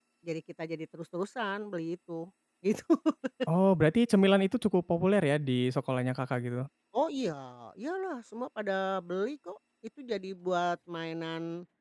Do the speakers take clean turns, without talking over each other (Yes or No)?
Yes